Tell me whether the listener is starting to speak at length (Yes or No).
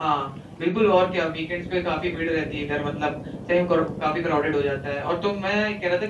No